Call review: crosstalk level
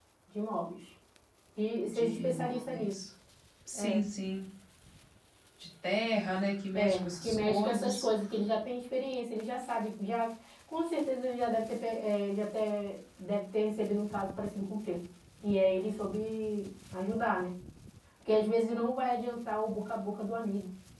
present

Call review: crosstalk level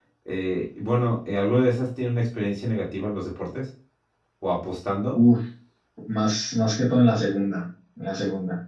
none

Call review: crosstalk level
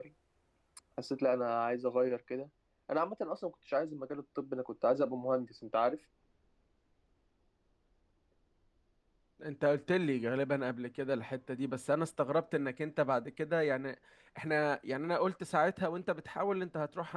none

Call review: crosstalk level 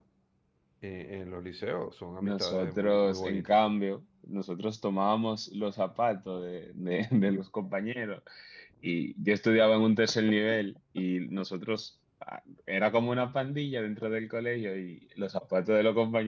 present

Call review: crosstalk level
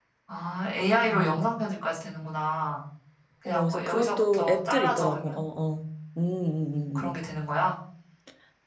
present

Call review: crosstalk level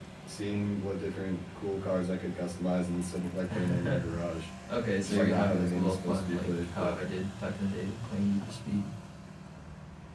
present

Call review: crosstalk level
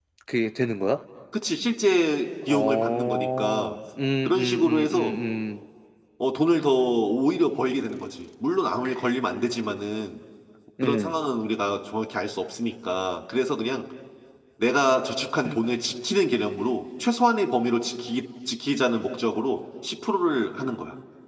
present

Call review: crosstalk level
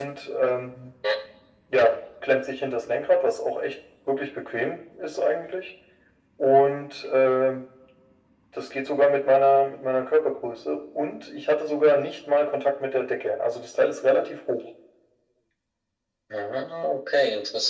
none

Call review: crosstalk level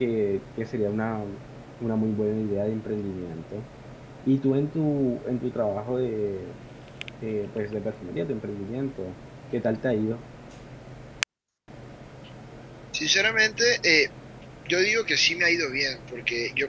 none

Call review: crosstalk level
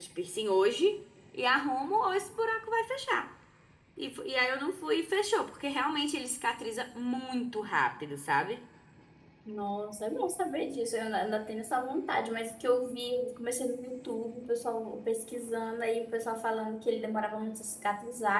none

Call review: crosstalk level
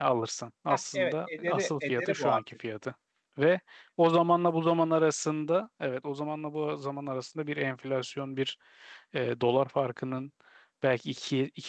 present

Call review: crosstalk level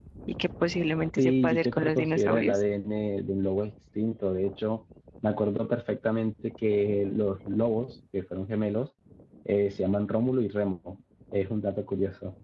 present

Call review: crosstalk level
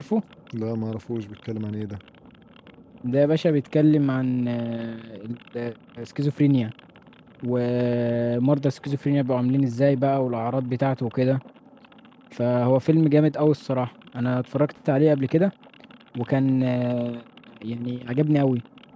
none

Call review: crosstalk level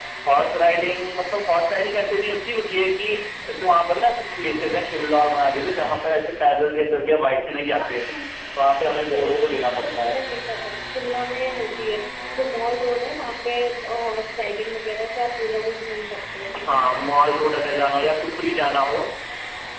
present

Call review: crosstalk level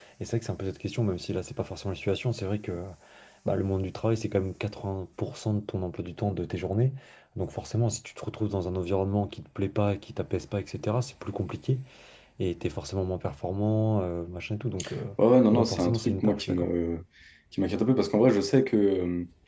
present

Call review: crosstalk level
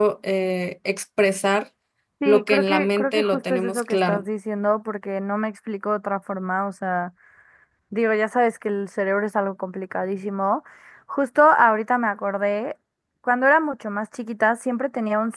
present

